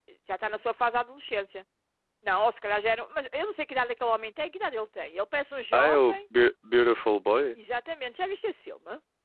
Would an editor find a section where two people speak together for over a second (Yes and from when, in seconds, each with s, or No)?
No